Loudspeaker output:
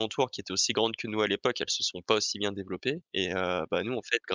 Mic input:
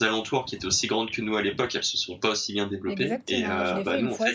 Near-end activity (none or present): present